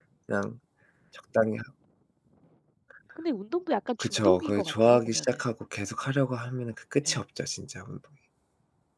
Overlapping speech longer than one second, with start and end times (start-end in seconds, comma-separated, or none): 4.0-5.2